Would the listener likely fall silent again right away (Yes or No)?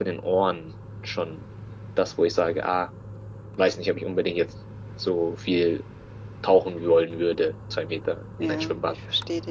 No